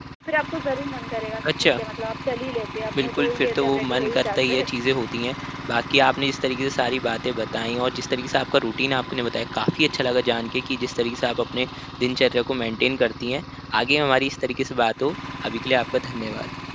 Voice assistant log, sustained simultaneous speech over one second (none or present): present